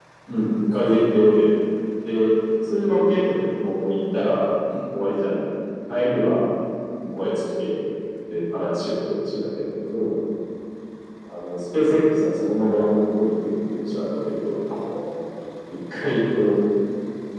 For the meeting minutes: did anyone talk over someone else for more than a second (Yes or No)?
No